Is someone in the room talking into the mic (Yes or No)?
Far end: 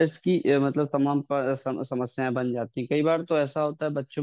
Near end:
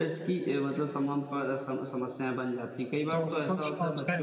Yes